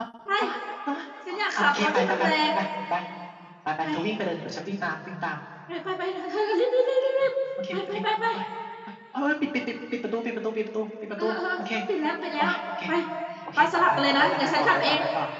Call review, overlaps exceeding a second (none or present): present